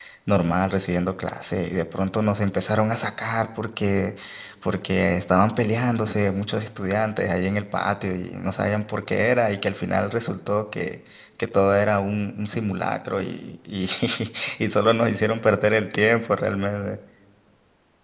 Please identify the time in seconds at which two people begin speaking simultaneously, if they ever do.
none

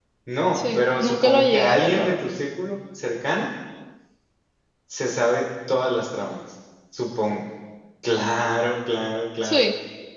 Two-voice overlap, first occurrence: 0.6 s

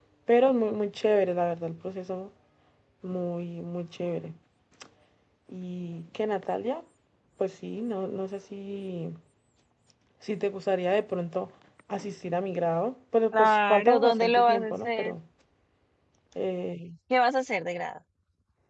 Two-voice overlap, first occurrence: 13.3 s

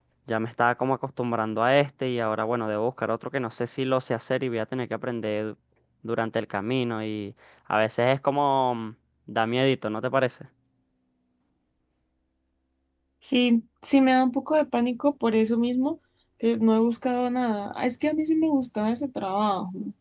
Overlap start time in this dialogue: none

